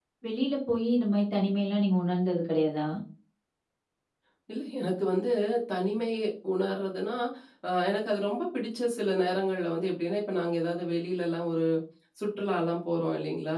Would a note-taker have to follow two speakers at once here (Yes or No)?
No